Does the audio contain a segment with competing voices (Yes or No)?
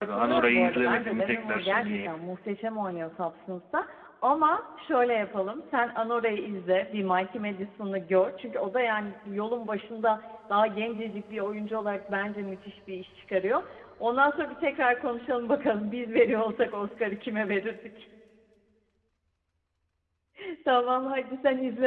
Yes